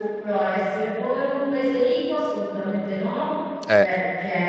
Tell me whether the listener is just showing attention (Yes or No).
Yes